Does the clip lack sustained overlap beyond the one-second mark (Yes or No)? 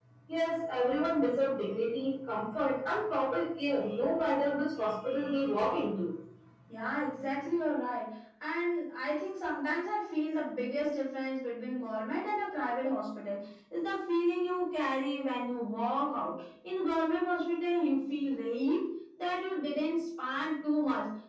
Yes